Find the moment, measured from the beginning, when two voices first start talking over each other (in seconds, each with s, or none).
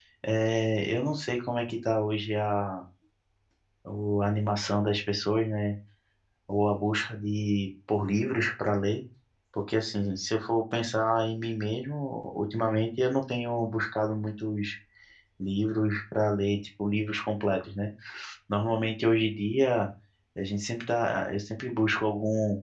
none